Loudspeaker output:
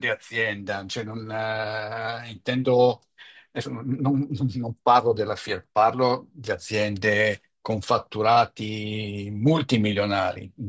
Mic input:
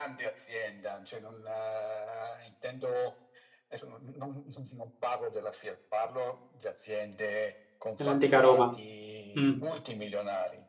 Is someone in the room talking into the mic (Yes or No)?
Yes